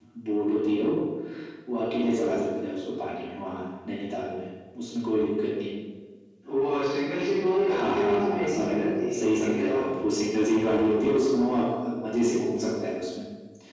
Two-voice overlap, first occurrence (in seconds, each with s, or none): 7.7 s